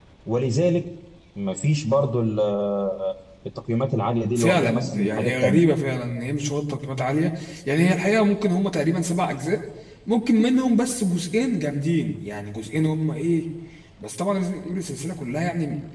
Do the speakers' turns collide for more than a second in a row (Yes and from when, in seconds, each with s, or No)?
Yes, from 4.4 s